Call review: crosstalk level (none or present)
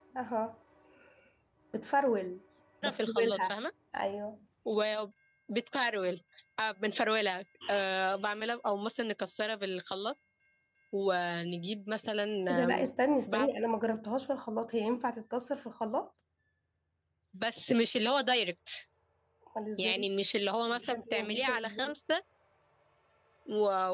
present